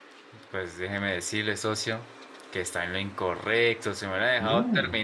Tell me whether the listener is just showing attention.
Yes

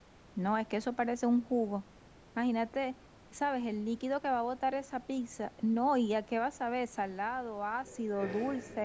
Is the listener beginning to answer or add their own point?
Yes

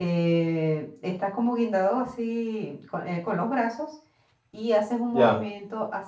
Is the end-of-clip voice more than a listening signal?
No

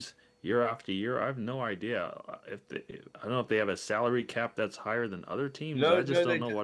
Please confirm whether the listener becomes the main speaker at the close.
Yes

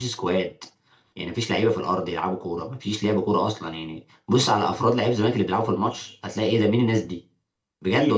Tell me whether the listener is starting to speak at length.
Yes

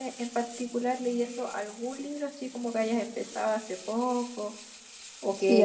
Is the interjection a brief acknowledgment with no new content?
No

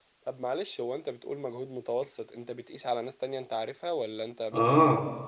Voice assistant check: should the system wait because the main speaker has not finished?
No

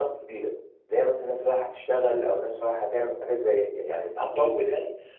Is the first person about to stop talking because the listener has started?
No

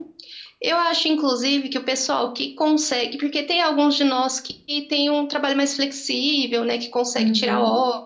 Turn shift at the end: No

